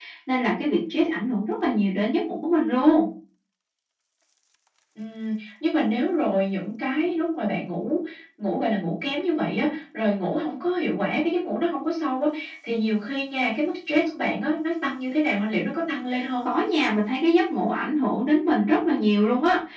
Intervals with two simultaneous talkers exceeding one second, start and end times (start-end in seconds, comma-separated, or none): none